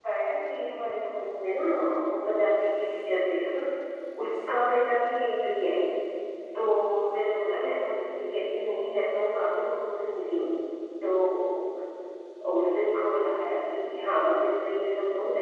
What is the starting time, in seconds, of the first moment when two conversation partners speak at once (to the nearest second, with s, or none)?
none